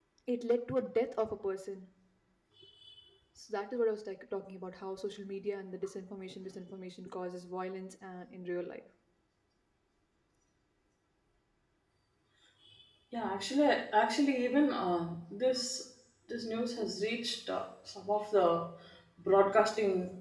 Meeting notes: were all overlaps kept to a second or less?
Yes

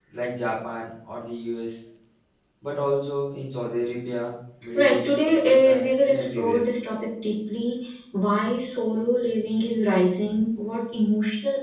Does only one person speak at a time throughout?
No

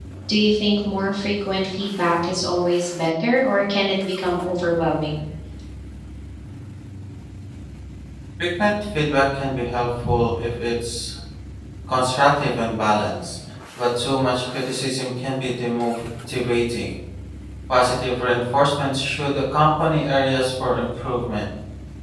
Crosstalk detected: No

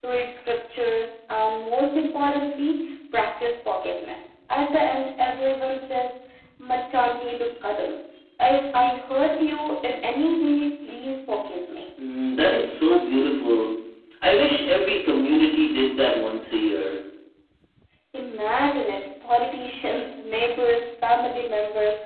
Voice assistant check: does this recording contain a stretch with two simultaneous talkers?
No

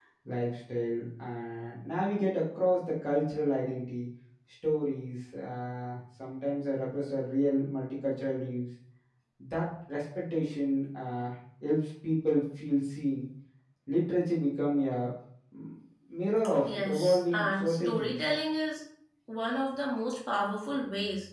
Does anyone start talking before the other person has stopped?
Yes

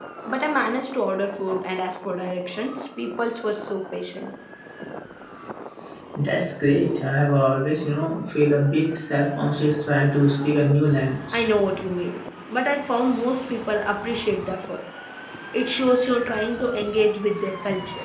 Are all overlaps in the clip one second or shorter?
Yes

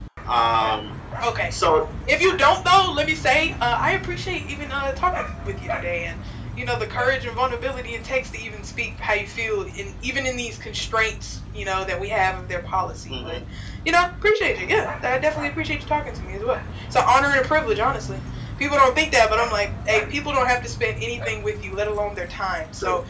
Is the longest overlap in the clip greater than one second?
No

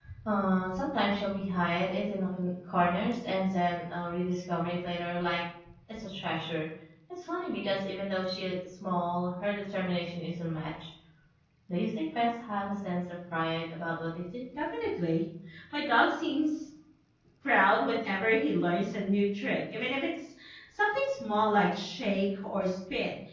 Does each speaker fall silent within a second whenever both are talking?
Yes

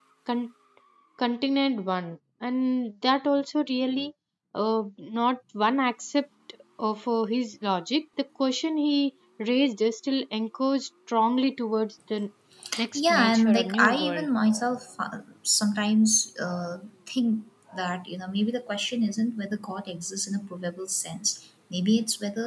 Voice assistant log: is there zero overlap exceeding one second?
No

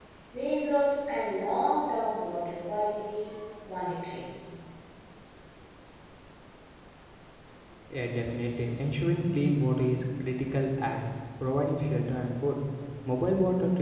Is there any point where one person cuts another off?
No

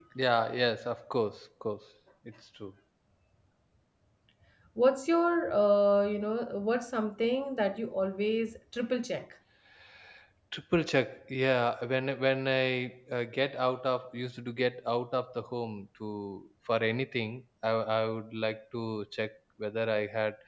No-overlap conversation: Yes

